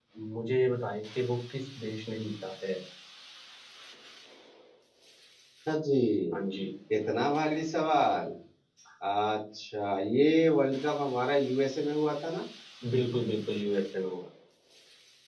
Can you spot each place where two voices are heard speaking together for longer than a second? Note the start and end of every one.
none

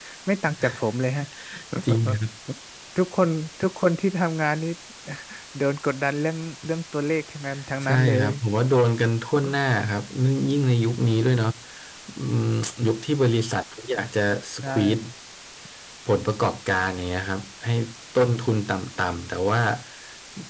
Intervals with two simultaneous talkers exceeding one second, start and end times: none

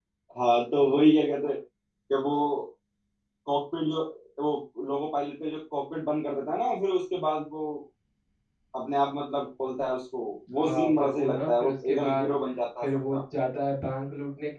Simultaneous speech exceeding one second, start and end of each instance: 10.6-12.3

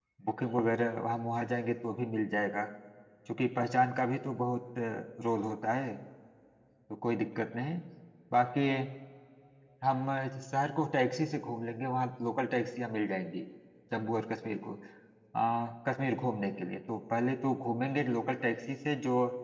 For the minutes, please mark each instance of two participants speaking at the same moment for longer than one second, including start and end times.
none

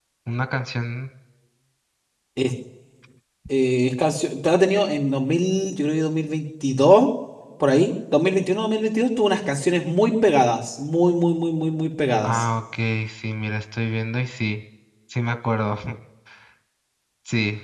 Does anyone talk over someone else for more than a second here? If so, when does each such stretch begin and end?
none

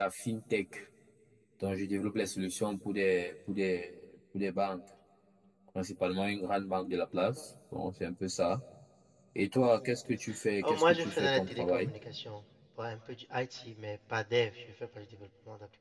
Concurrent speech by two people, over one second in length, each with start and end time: 10.6-11.9

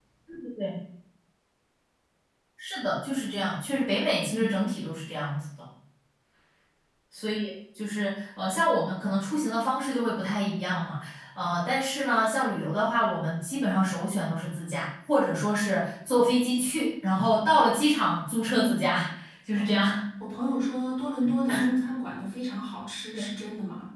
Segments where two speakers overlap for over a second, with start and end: none

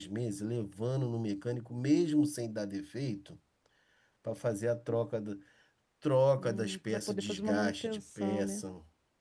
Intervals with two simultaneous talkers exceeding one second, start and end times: 6.4-8.6

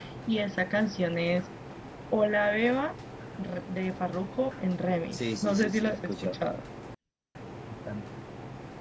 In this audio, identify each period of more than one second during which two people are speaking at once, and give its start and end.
5.1-6.4

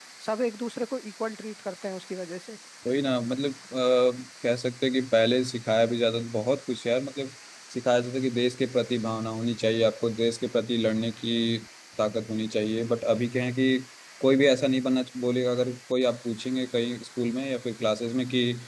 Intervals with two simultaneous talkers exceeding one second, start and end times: none

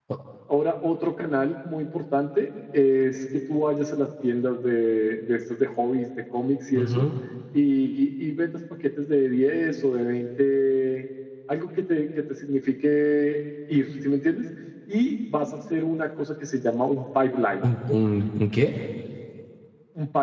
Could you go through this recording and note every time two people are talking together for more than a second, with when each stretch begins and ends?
none

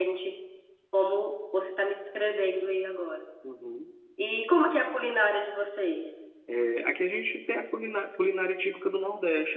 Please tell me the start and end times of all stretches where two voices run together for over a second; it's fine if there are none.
none

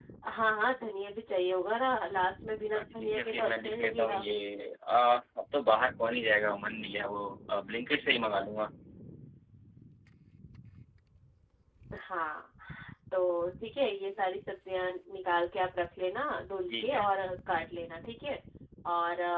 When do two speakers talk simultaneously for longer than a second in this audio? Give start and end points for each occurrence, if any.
2.7-4.2

